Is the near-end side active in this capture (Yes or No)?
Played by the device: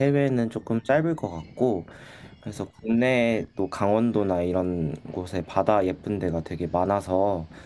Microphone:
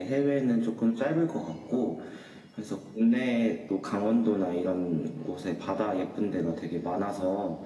No